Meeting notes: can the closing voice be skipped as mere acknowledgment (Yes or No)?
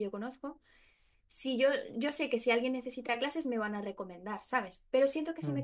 Yes